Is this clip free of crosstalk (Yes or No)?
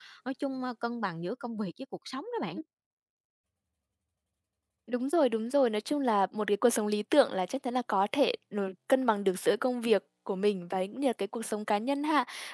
Yes